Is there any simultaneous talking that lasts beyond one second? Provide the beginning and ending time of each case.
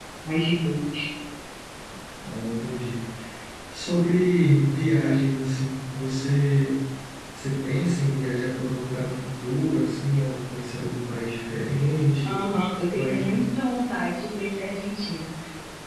none

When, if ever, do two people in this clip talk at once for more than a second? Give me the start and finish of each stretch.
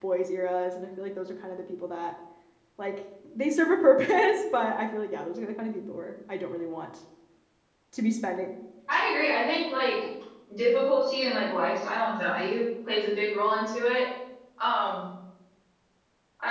none

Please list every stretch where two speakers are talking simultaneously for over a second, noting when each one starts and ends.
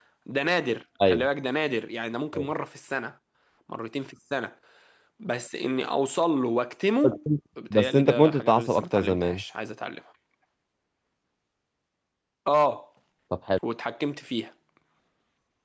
7.7-9.4

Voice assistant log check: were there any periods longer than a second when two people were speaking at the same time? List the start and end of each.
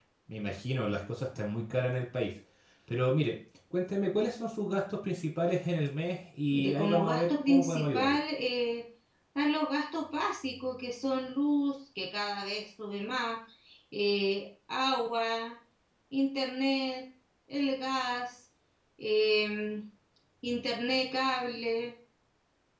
6.5-8.2

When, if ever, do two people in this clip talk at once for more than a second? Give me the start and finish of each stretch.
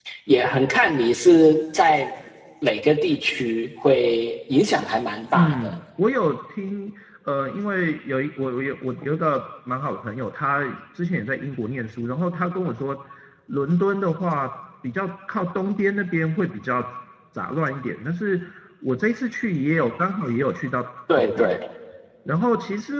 none

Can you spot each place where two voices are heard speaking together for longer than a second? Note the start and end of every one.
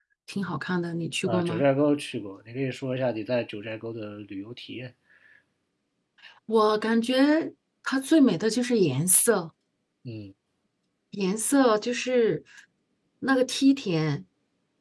none

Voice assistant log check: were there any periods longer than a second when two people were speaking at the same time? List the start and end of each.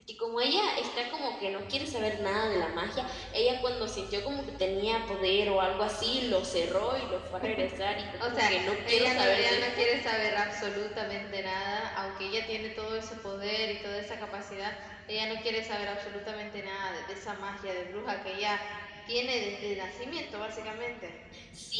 8.2-9.8

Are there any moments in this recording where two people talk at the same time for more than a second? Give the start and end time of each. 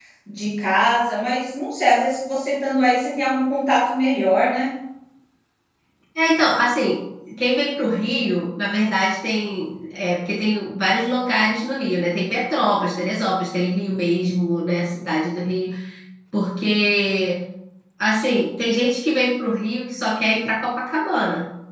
none

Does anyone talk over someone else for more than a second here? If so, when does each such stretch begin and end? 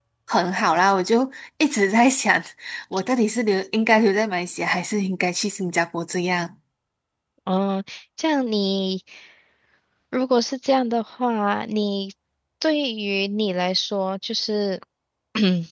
none

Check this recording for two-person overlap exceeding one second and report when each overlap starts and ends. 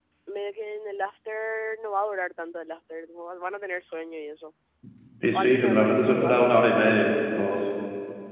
5.3-6.6

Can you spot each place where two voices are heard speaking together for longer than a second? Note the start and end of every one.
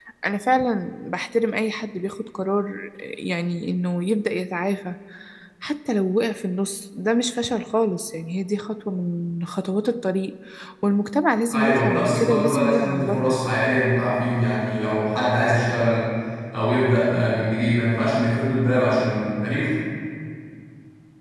11.5-13.4

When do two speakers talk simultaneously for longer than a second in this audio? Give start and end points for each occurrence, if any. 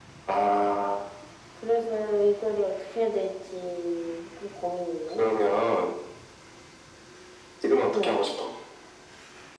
none

